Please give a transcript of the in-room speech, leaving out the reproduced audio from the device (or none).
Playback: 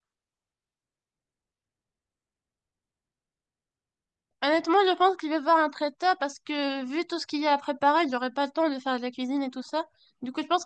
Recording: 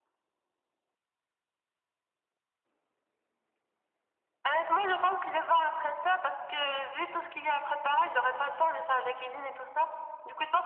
none